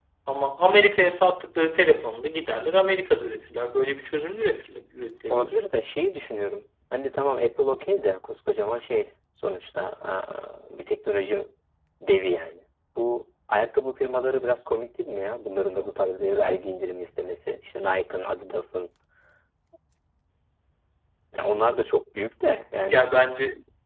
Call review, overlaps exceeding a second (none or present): none